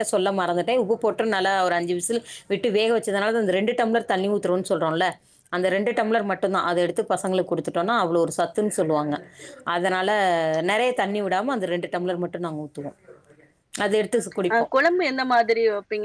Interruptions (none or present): none